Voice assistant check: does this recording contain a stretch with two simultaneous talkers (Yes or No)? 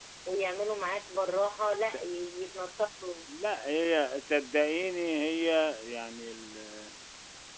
No